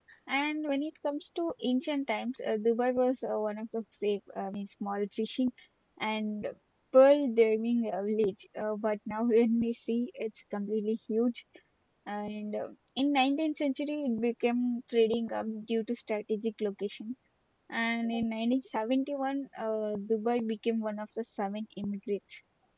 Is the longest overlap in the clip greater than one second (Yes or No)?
No